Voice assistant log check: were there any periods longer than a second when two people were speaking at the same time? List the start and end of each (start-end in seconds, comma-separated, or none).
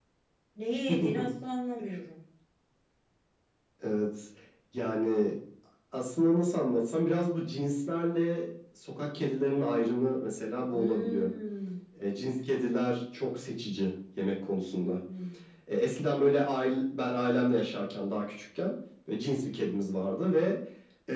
none